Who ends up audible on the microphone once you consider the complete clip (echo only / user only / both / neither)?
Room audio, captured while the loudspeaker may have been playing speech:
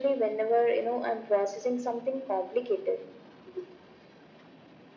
echo only